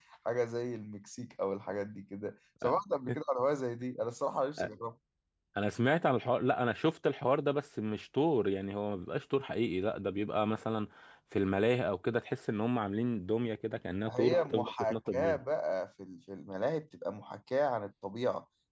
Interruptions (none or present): present